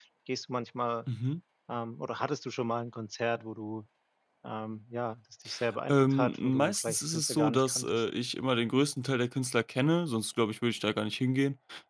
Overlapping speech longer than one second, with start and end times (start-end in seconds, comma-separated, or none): 5.9-8.0